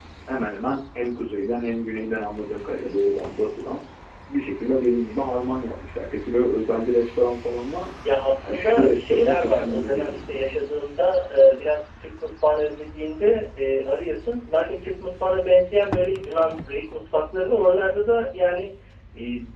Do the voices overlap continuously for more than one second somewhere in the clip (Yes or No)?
Yes